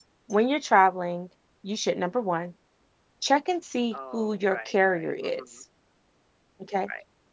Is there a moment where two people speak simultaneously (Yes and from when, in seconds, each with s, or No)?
Yes, from 3.9 s